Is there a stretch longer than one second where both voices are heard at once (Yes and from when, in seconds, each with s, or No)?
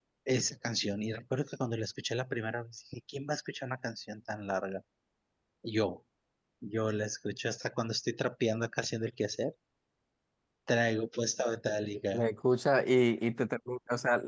No